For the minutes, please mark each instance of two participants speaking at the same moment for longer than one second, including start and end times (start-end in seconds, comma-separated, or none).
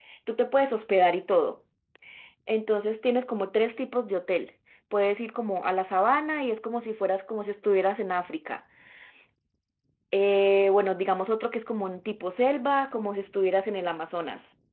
none